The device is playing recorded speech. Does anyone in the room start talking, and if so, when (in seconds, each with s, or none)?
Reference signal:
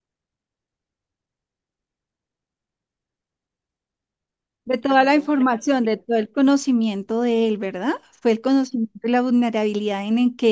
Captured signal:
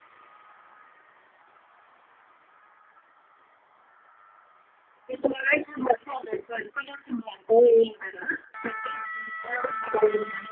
none